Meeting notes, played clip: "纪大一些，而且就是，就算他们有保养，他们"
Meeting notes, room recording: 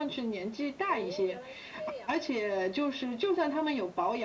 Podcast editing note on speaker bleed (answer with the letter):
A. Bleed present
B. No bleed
A